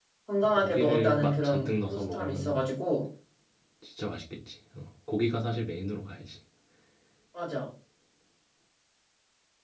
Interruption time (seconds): 0.6 s

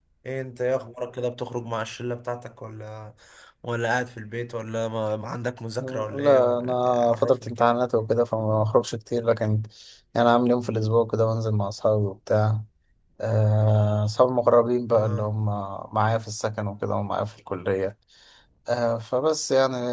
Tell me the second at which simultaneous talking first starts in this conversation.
5.8 s

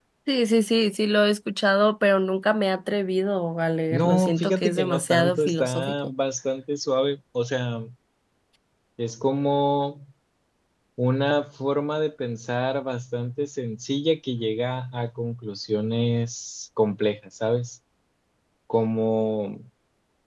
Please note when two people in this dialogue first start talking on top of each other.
3.9 s

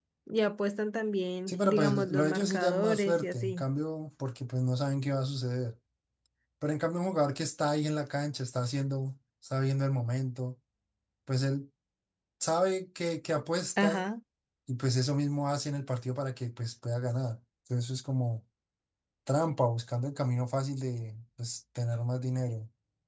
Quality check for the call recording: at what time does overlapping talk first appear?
1.5 s

